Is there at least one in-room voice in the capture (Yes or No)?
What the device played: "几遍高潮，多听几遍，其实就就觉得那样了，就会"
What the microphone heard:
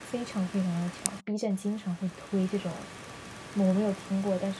Yes